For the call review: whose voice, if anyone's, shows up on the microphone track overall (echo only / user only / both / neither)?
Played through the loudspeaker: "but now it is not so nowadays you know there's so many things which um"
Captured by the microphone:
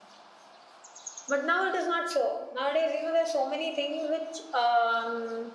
echo only